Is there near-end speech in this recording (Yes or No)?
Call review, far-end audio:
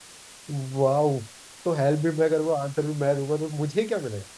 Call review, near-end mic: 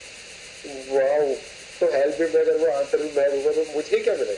No